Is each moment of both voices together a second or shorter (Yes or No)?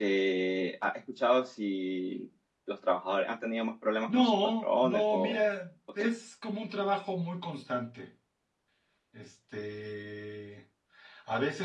No